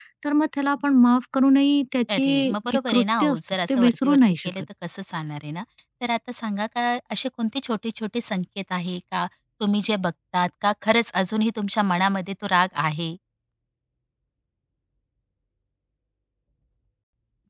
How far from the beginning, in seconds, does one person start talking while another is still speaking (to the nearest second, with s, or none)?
2 s